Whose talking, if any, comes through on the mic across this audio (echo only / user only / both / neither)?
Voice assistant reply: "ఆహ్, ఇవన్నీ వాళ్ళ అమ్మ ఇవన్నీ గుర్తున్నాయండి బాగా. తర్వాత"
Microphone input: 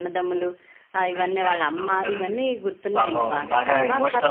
both